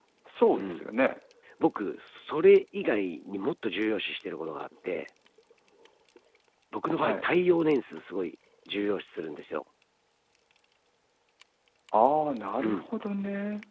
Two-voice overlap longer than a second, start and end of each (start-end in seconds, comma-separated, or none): none